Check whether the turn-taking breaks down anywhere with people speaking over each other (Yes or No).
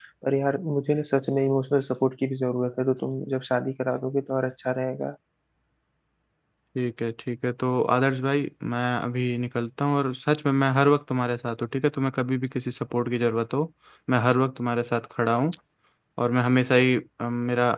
No